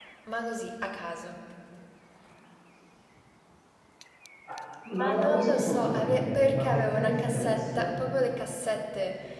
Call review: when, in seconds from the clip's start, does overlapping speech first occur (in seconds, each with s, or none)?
4.9 s